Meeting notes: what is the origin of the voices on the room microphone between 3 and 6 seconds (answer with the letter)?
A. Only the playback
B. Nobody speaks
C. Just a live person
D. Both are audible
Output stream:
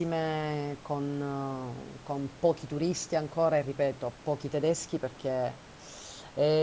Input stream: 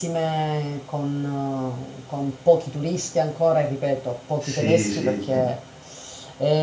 D